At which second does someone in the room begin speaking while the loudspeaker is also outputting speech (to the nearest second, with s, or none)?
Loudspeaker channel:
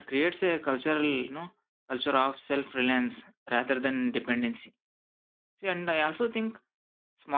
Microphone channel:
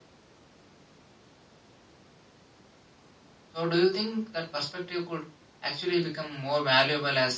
4 s